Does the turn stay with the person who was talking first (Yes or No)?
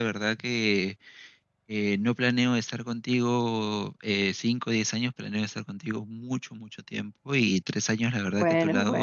Yes